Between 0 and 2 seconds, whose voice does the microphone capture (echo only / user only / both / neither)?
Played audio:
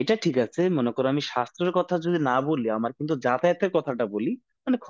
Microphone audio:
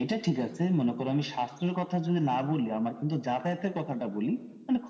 echo only